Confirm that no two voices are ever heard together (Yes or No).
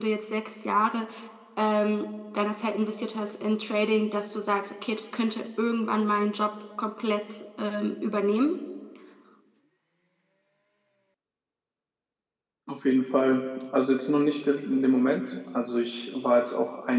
Yes